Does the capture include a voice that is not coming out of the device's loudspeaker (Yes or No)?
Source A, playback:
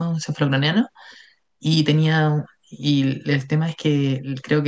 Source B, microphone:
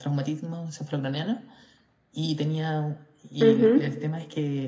Yes